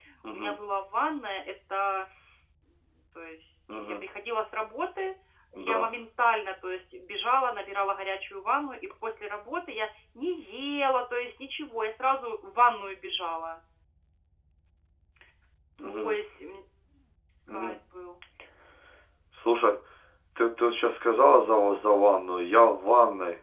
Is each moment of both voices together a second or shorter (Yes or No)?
Yes